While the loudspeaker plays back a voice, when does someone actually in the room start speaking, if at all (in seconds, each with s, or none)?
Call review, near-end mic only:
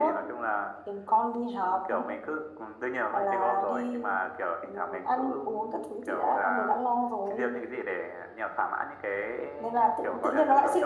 none